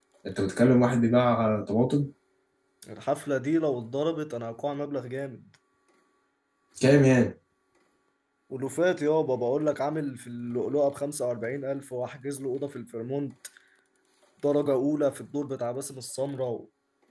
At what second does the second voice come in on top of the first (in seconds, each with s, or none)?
none